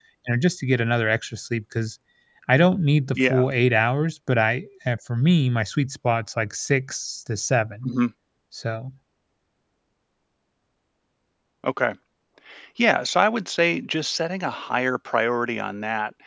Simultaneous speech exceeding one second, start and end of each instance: none

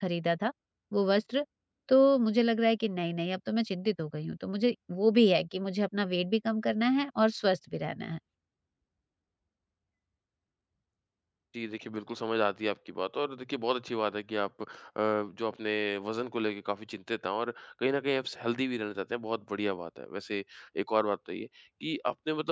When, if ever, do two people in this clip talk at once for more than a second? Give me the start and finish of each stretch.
none

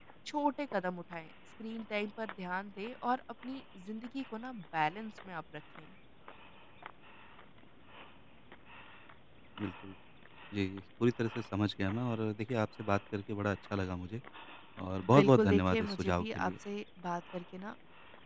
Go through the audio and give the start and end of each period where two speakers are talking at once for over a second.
15.2-16.5

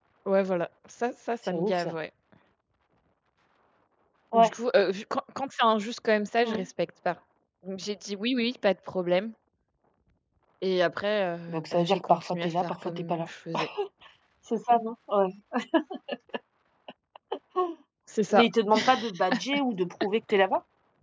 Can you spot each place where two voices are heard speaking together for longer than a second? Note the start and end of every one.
11.5-13.3

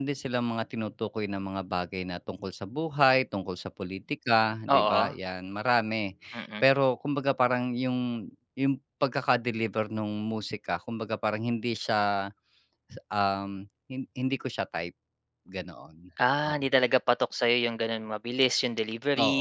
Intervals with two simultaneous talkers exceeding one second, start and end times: none

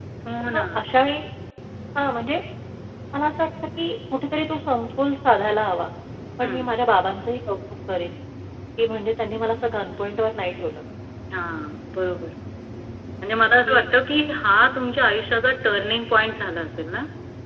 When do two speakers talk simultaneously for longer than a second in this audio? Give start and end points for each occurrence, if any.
none

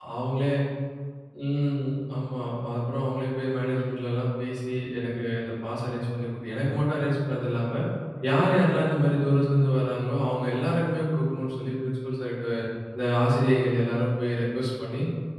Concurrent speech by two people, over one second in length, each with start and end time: none

